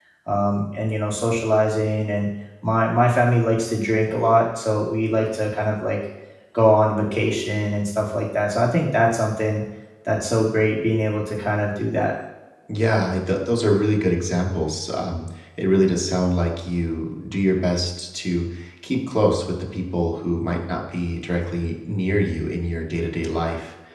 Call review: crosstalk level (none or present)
none